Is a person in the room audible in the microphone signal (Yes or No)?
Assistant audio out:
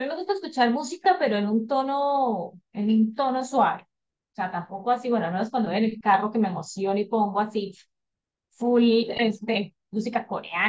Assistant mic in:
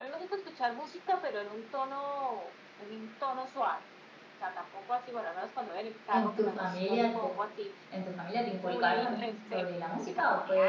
Yes